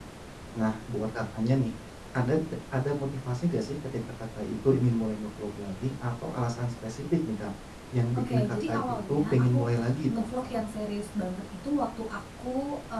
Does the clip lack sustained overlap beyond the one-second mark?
No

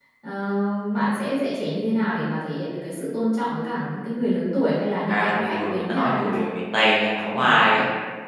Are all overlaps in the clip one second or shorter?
No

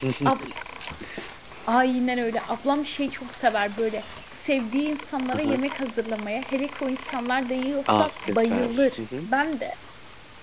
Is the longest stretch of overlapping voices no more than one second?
No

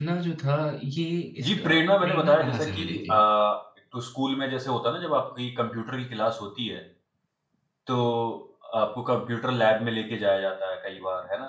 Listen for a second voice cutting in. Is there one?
Yes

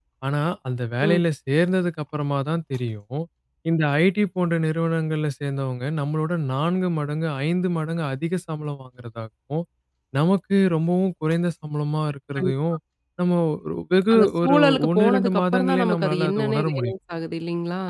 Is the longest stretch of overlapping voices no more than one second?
No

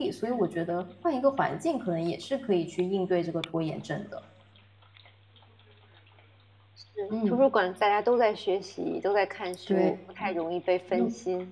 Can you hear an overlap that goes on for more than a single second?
No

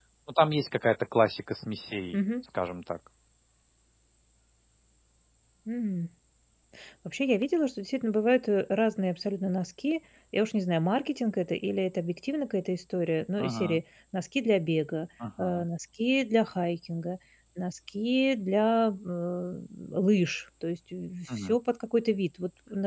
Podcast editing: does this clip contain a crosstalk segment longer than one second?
No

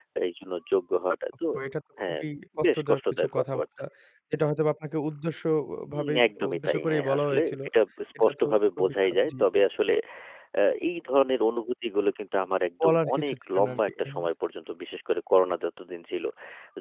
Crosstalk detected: Yes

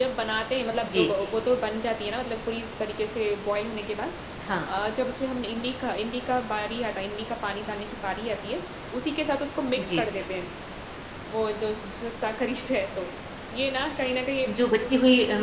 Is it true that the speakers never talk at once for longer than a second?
Yes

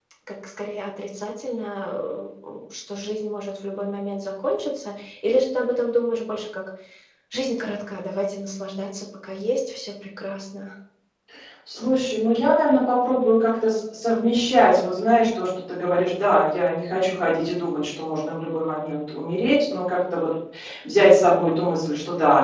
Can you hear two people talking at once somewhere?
No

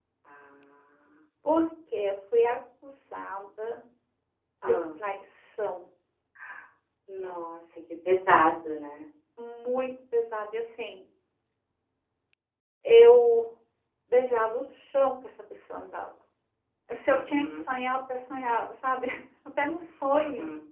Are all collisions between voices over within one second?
Yes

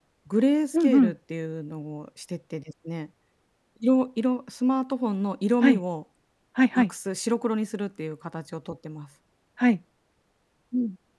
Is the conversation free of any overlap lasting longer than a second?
Yes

